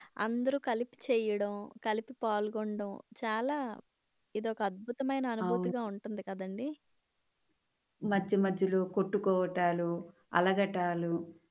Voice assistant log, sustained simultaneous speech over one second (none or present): none